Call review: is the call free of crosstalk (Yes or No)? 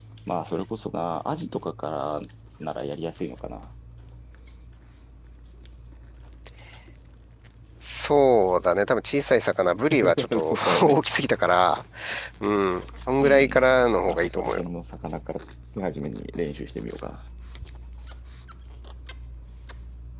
No